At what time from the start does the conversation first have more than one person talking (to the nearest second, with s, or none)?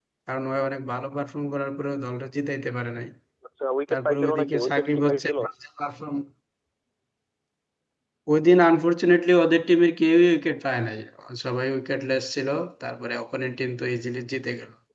4 s